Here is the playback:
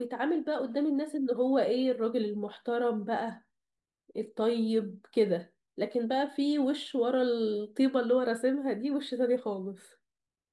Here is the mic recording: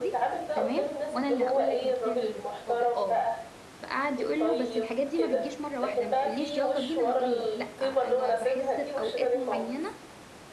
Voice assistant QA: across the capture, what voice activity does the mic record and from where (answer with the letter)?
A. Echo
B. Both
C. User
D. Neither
B